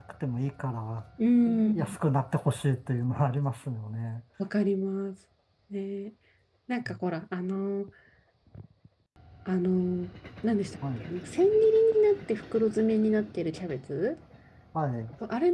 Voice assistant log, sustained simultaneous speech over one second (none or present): none